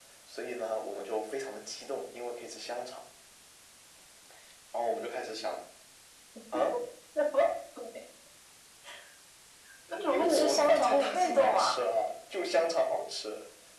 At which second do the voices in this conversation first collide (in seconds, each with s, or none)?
10.1 s